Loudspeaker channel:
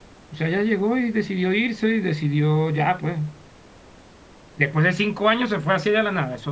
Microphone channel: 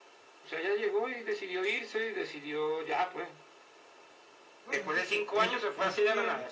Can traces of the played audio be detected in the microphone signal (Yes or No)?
Yes